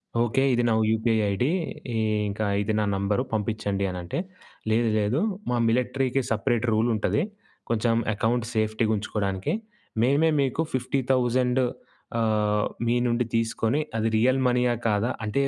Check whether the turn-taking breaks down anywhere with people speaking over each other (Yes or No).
No